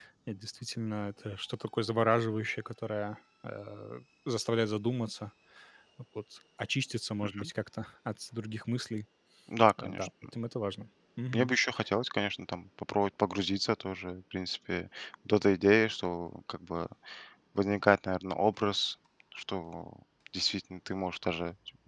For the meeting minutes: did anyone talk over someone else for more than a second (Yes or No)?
No